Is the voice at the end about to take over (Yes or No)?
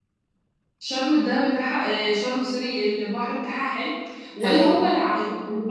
No